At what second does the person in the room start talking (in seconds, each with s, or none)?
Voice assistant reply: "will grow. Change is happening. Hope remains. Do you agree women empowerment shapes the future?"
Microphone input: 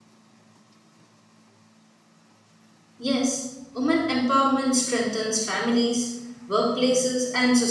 3.0 s